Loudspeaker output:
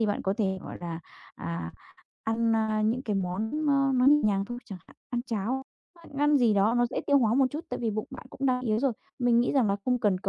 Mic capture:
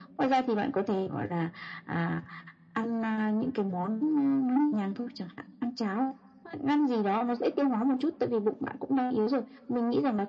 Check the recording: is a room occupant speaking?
No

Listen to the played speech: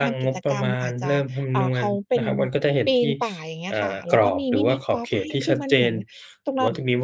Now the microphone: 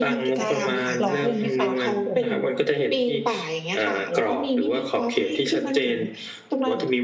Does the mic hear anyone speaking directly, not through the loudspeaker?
Yes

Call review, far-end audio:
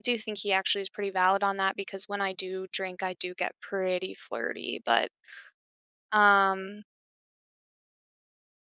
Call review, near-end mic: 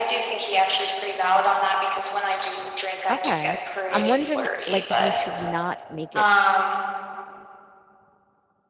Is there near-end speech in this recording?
Yes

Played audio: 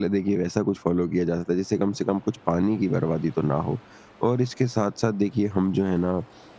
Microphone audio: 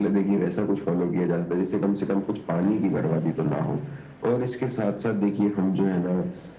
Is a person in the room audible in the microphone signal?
No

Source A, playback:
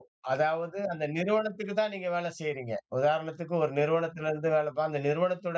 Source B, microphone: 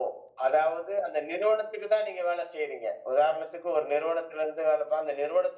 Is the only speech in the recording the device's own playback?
Yes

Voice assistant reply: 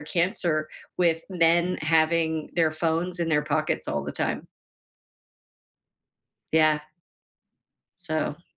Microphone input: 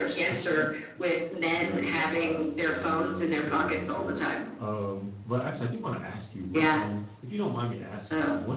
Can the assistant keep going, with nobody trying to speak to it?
No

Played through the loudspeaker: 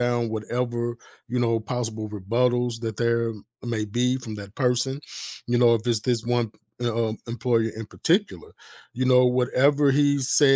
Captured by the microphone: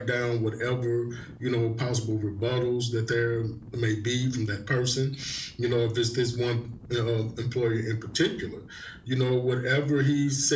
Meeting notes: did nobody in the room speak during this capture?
Yes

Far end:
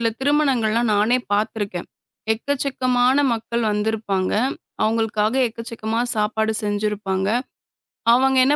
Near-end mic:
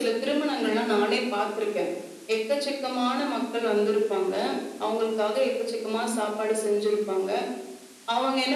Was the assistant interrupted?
No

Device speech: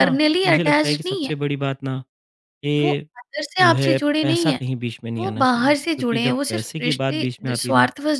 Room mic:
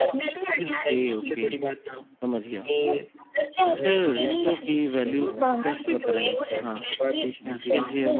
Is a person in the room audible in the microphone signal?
Yes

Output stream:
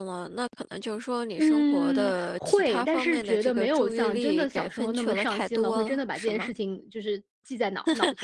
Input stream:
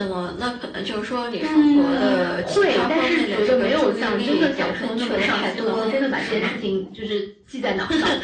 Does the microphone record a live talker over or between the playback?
Yes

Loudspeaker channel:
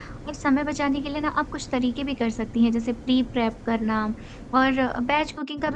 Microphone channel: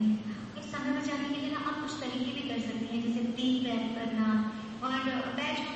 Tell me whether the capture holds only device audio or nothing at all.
Yes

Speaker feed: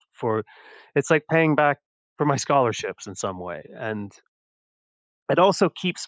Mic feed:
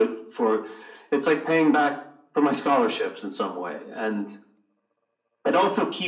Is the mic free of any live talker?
Yes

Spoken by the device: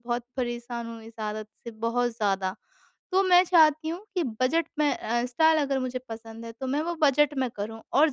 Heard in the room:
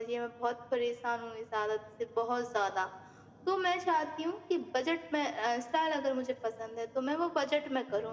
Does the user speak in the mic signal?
No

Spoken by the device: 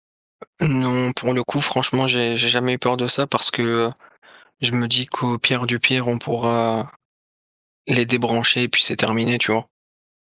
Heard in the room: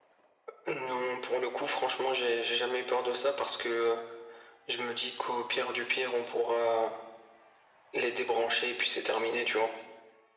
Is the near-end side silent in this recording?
Yes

